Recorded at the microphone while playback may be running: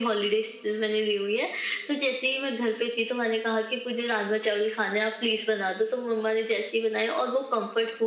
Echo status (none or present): present